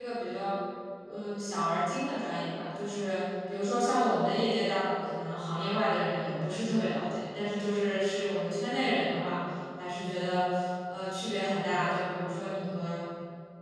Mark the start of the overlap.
none

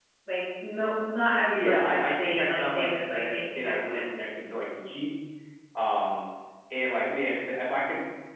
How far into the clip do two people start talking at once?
1.6 s

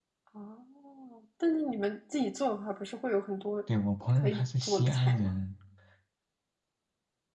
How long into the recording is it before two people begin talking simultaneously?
4.1 s

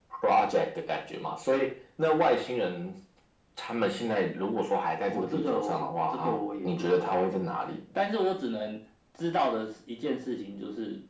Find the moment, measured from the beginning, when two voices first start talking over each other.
5.1 s

